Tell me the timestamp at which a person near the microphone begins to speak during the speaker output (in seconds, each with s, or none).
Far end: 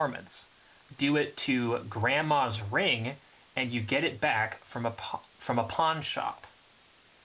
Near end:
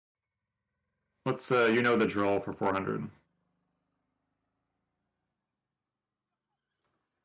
1.2 s